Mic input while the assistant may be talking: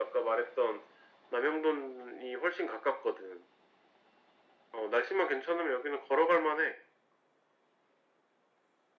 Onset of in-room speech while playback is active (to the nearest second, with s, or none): none